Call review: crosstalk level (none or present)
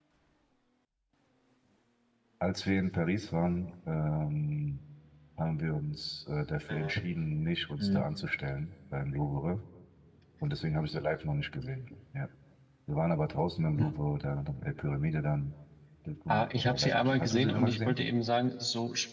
present